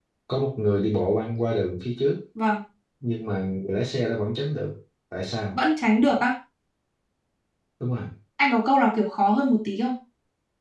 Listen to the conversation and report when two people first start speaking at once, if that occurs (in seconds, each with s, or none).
none